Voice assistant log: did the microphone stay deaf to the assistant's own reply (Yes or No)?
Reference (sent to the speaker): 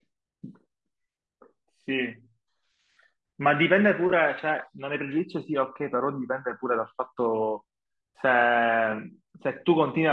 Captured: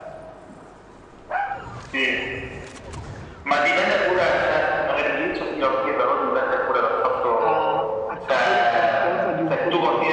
No